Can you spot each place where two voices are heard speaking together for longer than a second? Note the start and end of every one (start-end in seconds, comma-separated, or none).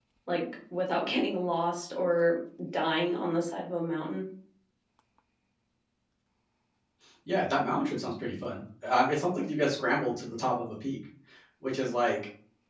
none